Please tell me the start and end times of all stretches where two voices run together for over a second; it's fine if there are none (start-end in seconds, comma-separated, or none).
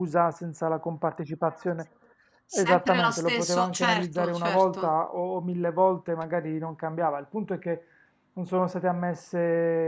2.5-4.9